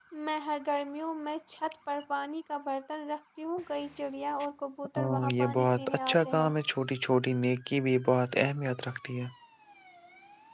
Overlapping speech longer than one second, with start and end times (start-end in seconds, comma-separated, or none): 5.0-6.5